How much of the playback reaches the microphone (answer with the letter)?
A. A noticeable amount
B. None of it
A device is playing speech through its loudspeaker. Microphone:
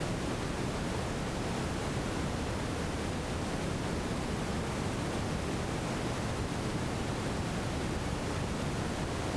B